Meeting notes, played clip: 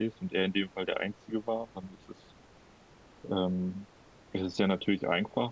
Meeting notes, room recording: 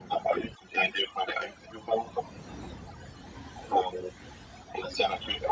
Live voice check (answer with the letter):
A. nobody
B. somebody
A